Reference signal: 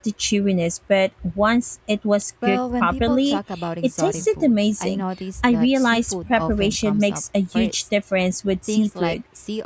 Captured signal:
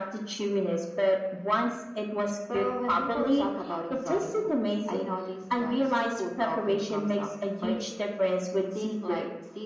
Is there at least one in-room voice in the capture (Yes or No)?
No